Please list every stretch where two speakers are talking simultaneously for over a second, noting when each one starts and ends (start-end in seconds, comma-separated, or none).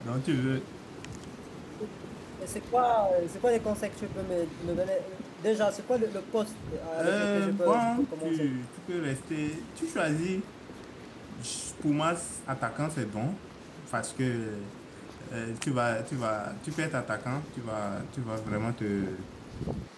6.9-8.5